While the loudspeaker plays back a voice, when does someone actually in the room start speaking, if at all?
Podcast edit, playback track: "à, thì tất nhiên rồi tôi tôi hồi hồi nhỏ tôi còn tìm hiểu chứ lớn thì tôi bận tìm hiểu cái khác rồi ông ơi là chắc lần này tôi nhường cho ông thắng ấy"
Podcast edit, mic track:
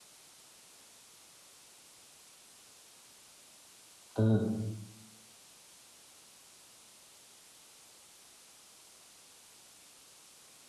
4.2 s

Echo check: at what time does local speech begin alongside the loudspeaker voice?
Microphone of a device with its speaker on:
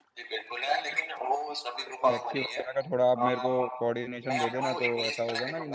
2.1 s

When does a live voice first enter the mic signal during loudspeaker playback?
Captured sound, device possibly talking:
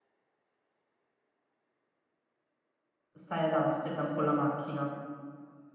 3.1 s

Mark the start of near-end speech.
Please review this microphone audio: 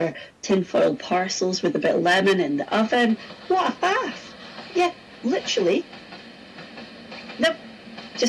none

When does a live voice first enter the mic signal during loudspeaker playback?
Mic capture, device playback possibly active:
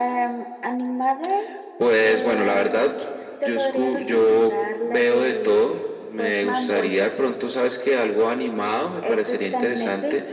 none

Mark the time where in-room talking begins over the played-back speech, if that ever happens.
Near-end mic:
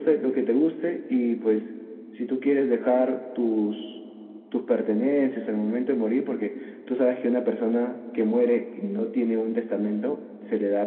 none

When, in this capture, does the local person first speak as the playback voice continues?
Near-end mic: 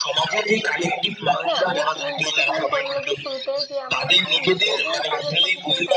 1.5 s

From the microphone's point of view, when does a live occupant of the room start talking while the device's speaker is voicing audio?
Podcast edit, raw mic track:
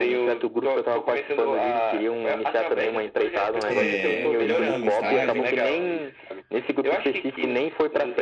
3.7 s

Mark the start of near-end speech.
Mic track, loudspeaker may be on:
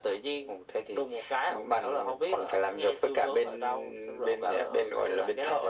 none

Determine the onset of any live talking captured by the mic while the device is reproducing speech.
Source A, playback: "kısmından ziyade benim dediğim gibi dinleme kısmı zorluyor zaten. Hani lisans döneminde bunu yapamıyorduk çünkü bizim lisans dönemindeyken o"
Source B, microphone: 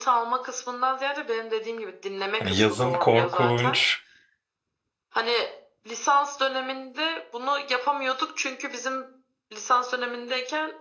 2.4 s

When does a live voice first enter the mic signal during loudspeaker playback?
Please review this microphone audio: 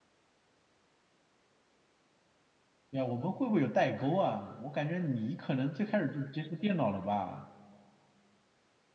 2.9 s

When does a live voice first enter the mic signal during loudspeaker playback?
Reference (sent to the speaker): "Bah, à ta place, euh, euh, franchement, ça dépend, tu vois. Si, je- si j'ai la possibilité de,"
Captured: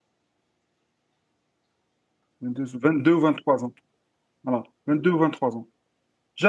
2.4 s

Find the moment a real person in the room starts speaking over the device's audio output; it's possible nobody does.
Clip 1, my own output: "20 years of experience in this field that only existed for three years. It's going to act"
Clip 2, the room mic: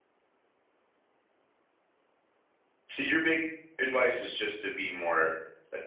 2.9 s

